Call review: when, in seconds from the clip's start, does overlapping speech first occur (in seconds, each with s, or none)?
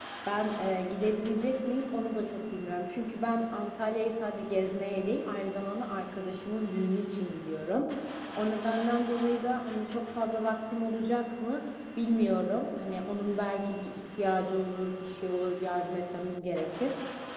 none